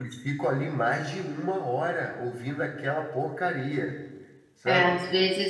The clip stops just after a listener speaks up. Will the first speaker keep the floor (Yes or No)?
No